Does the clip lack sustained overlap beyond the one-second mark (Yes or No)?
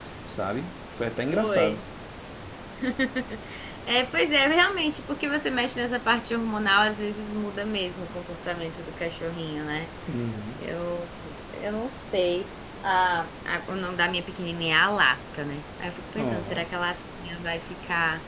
Yes